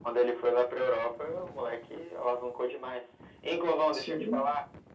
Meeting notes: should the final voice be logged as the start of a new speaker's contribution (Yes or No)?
No